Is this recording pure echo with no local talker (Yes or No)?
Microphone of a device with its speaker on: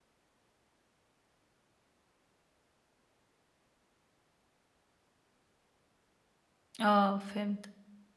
No